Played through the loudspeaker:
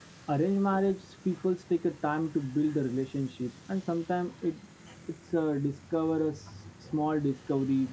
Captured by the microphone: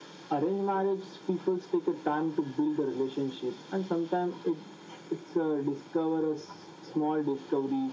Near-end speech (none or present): none